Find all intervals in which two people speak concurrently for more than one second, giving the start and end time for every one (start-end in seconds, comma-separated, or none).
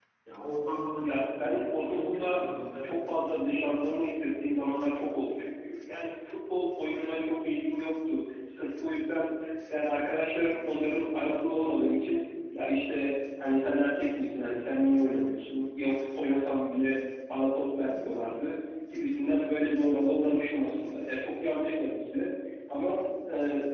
1.0-2.4